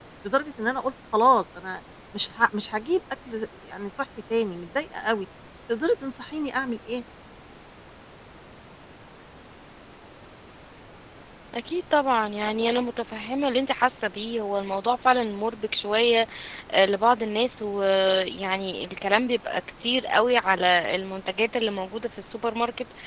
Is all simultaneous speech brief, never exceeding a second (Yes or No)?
Yes